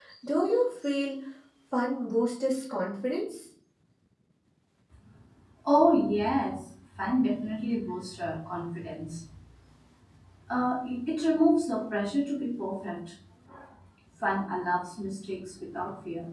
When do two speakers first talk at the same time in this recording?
none

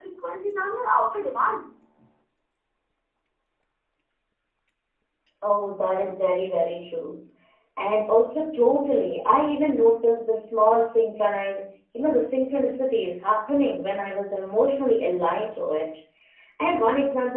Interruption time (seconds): none

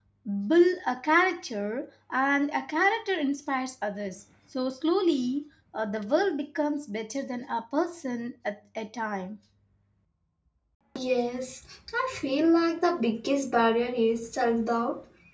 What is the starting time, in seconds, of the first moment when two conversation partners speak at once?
none

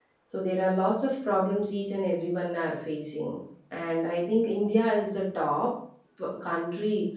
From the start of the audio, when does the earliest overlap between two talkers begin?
none

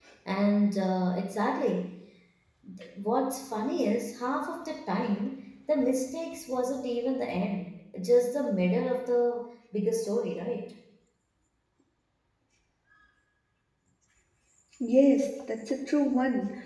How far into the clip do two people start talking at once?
none

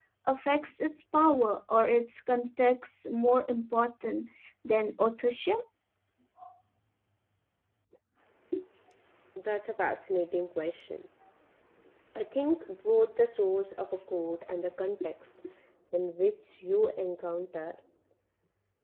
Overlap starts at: none

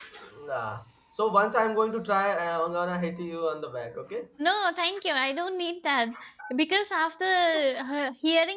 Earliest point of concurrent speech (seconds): none

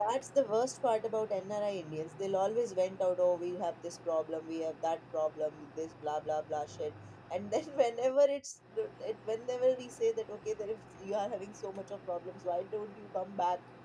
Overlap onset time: none

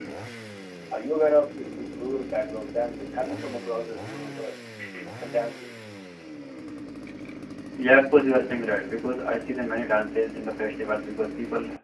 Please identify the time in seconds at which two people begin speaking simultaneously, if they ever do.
none

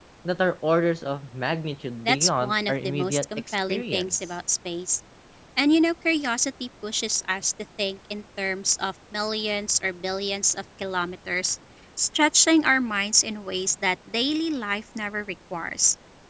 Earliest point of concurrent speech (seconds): 2.0 s

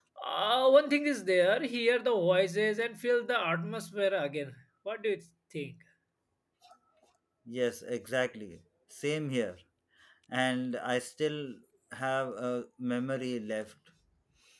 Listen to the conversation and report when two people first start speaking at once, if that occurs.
none

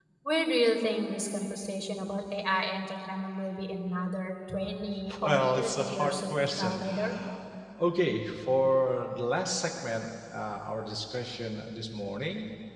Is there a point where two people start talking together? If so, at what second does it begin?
5.1 s

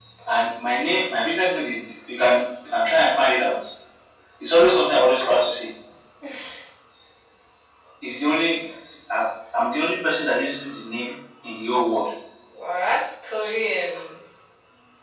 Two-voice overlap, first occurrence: none

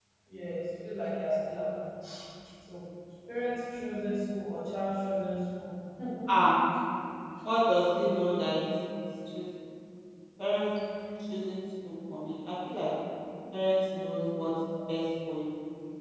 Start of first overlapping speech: none

